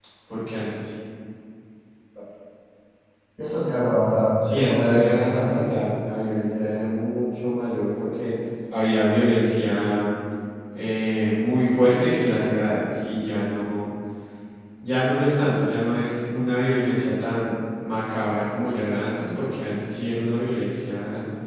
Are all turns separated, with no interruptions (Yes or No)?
No